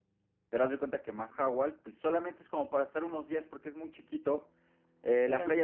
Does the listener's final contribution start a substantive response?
No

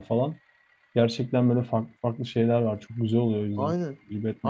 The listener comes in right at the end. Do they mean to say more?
Yes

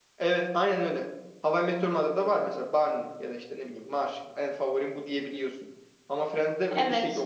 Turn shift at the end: Yes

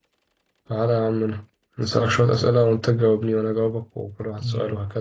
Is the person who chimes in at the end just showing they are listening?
No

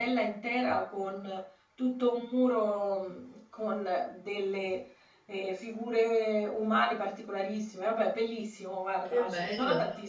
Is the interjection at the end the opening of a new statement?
Yes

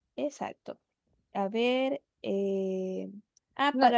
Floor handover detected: No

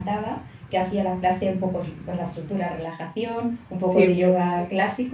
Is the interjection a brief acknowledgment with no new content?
Yes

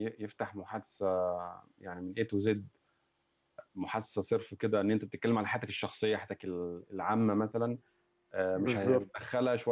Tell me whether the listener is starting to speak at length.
No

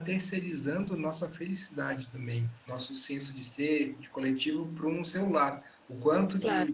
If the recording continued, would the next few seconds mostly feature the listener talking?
No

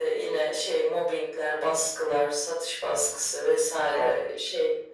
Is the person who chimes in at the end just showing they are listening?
Yes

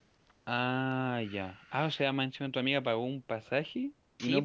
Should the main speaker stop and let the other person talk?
Yes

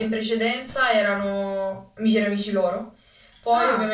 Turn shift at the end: No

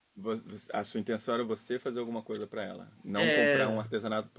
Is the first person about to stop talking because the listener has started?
No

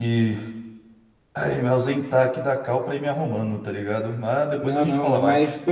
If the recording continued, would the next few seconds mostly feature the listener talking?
Yes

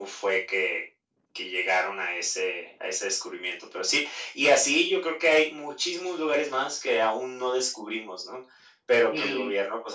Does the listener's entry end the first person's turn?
No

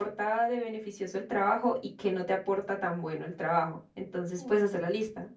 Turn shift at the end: No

